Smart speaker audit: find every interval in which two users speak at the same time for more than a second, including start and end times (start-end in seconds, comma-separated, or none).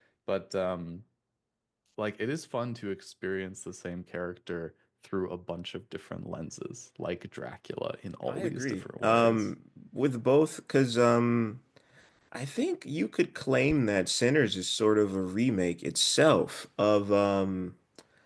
8.3-9.5